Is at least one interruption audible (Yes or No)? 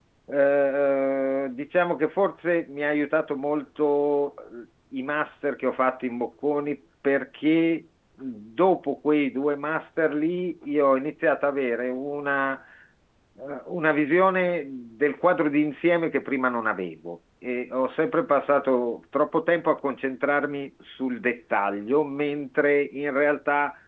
No